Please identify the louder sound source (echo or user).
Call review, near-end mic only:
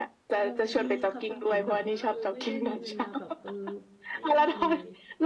echo